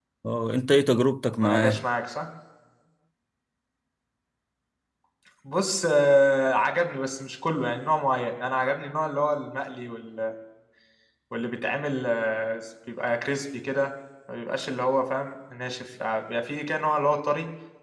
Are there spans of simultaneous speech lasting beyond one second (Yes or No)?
No